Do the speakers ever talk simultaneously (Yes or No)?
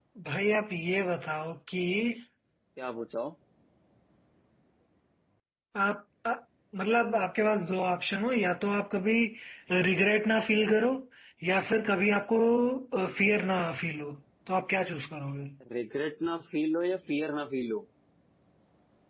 No